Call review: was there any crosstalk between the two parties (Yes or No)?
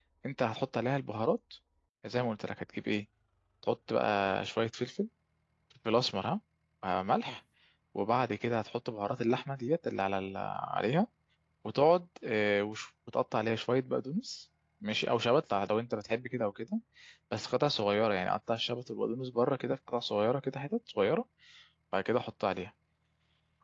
No